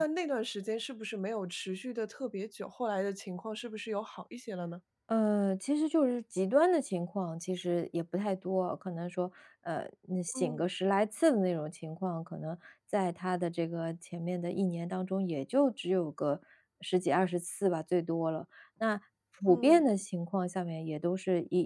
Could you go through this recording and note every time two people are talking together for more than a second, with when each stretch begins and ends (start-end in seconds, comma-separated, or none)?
none